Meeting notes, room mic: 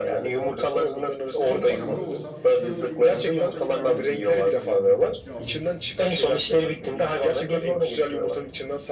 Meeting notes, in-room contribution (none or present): present